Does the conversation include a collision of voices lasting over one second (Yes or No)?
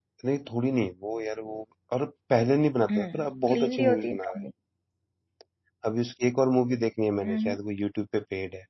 Yes